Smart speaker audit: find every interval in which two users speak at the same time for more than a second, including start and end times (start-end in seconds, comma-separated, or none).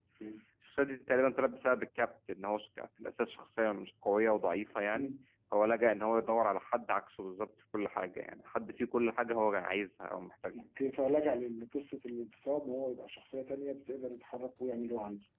none